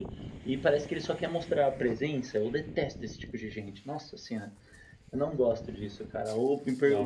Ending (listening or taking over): listening